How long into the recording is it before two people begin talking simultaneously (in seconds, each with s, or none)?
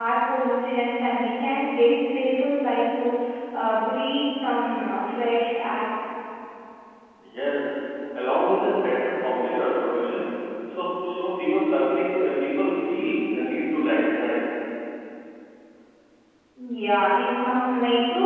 none